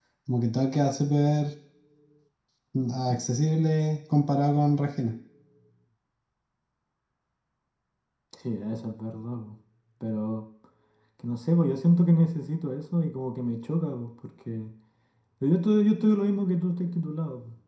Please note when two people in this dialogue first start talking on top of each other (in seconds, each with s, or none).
none